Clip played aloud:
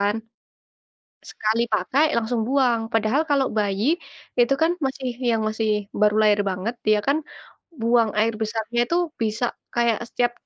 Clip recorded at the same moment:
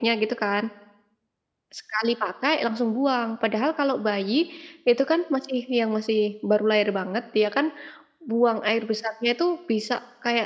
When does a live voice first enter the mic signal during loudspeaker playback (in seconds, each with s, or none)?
none